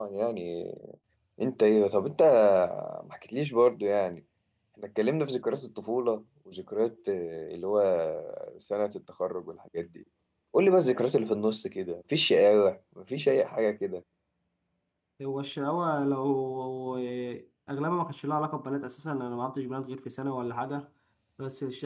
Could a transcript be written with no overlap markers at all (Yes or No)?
Yes